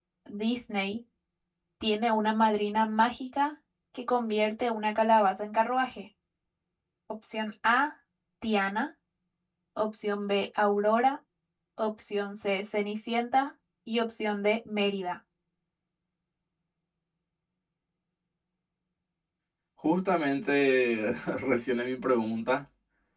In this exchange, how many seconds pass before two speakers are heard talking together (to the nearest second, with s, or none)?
none